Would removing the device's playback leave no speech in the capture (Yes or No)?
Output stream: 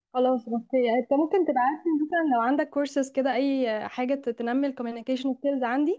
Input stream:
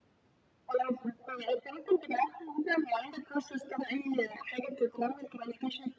Yes